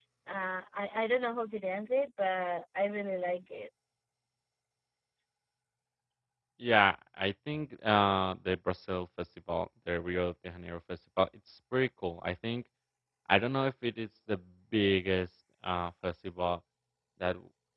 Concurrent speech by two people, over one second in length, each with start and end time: none

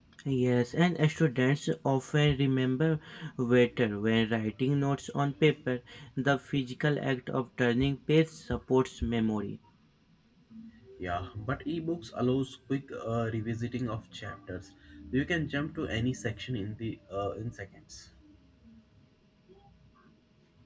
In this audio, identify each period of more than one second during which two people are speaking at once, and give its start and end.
none

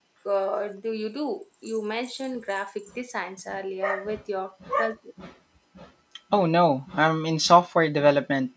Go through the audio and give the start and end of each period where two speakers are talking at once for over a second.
none

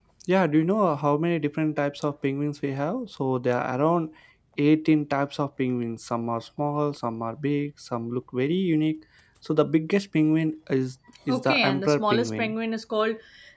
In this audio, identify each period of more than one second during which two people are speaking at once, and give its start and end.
11.3-12.5

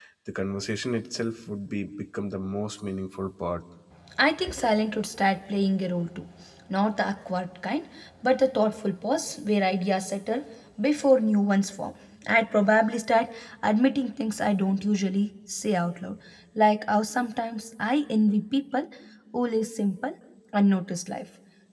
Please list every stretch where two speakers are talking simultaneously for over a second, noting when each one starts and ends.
none

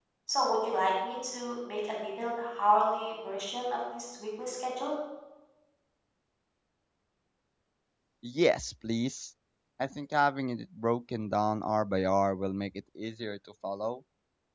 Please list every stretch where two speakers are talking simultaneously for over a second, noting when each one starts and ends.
none

